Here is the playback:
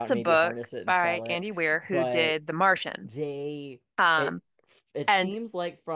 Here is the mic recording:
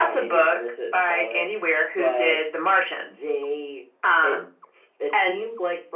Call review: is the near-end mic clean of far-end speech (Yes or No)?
No